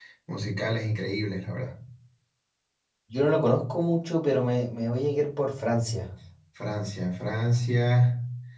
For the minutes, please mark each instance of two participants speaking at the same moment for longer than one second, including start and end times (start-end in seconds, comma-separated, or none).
none